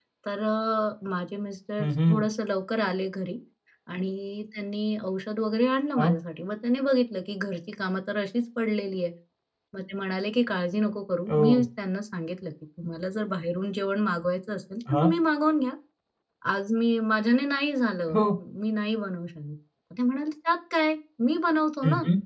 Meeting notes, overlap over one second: none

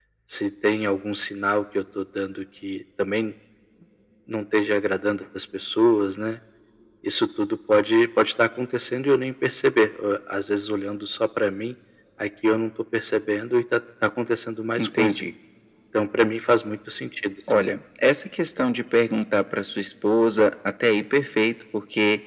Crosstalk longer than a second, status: none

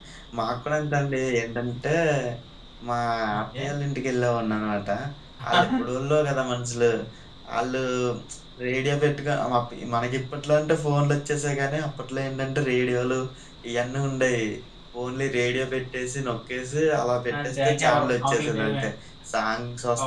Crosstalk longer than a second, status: present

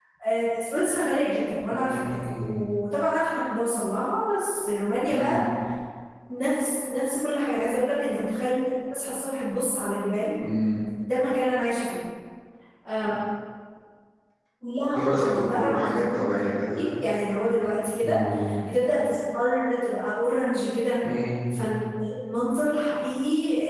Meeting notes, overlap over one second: present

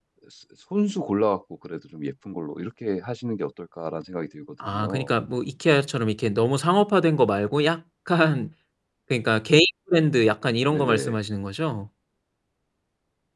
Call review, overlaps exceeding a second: none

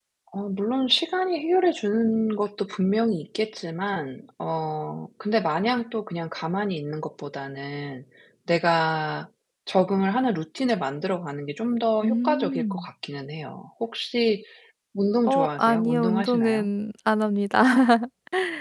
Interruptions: present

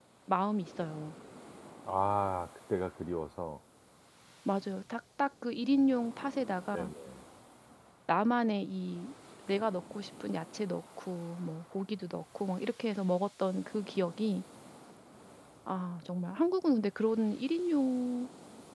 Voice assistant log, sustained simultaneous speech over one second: none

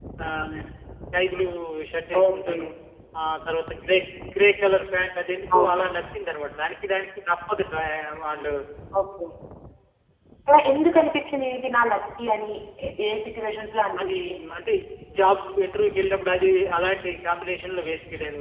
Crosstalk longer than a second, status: none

